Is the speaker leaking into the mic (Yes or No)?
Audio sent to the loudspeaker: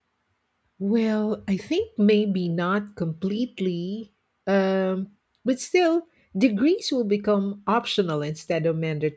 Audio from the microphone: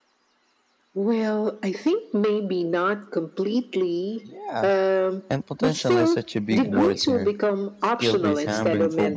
Yes